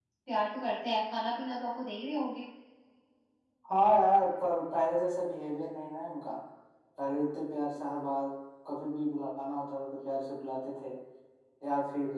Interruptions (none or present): none